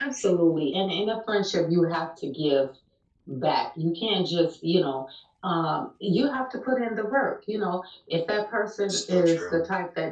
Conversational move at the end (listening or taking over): listening